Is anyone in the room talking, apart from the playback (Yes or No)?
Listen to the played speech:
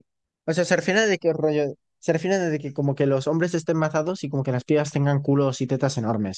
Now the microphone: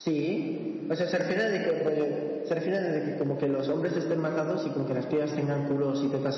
No